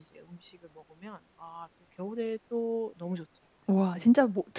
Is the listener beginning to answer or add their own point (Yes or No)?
Yes